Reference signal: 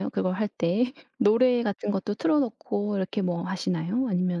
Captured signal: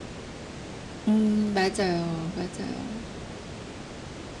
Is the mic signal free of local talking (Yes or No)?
No